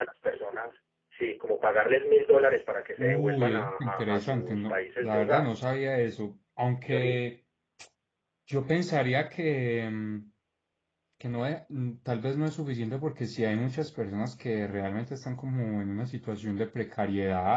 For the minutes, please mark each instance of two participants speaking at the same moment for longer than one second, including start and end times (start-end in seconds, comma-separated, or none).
3.0-5.5